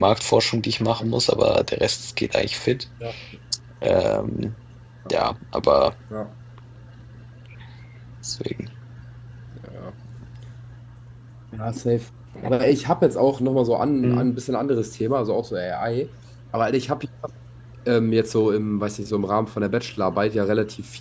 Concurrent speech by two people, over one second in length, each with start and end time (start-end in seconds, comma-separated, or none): none